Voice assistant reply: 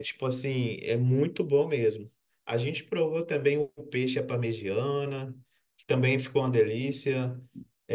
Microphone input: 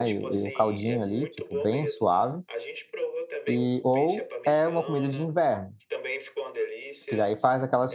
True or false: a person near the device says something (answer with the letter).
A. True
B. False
A